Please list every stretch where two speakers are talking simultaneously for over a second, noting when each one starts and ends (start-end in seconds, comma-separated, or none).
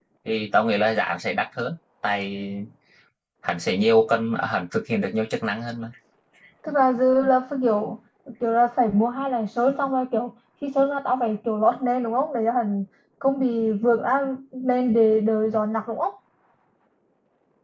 none